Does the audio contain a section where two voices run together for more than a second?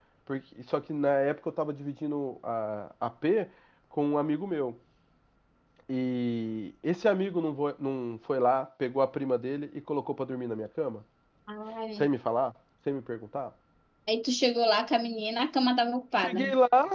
No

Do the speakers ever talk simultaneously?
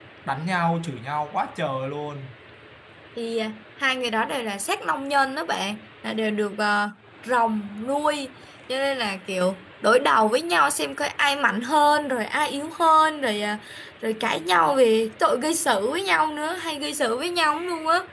No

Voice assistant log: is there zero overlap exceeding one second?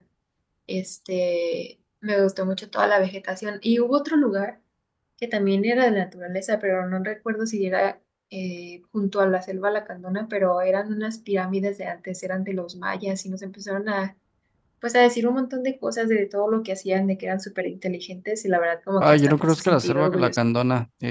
No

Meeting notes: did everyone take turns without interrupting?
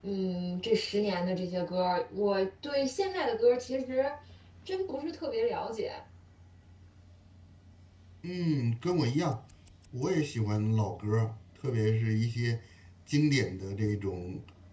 Yes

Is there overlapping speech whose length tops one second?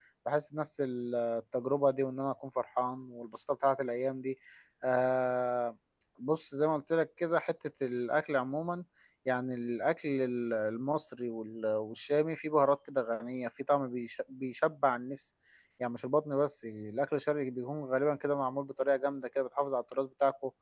No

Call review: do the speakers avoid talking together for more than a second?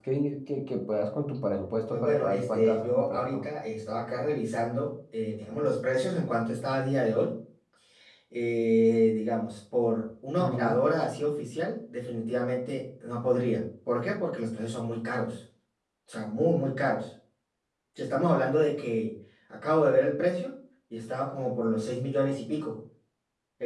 No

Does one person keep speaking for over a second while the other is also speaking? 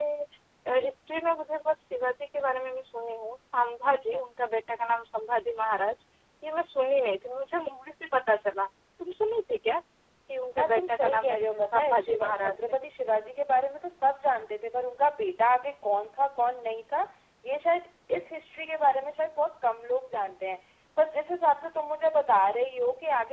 Yes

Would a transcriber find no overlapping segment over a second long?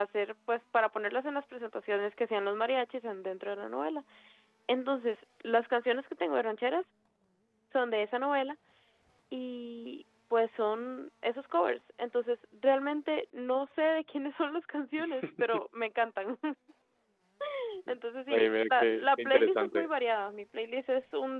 No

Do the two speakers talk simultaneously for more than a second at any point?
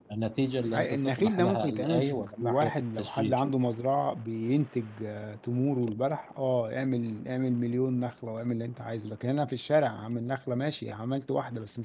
Yes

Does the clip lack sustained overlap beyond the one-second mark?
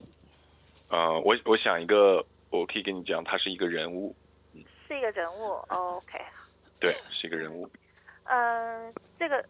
Yes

